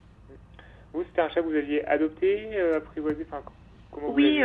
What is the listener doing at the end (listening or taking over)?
taking over